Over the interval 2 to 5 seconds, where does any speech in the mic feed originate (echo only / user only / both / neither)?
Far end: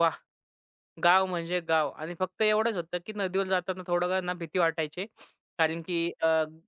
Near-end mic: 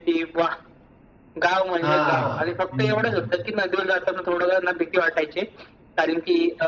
both